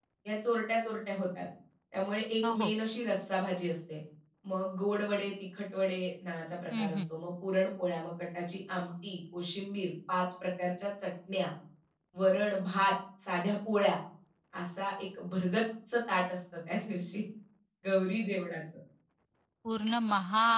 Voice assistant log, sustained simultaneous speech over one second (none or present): none